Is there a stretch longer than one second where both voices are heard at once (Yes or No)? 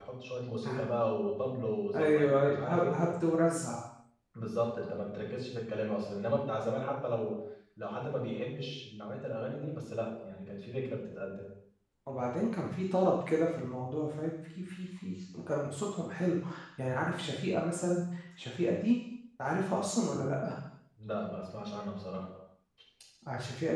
Yes